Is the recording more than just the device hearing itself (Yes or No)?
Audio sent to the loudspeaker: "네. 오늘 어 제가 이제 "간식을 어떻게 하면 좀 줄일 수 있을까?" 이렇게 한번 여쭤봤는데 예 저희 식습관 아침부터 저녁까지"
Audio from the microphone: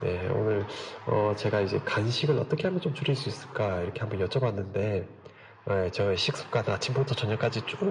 No